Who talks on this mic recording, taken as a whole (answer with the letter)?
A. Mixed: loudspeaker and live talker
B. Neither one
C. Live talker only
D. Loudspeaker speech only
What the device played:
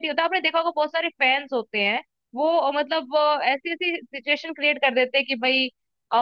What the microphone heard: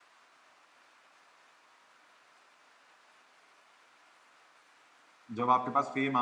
C